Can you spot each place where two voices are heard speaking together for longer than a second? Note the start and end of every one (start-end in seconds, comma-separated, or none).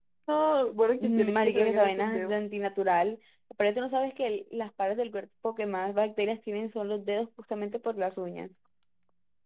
1.0-2.3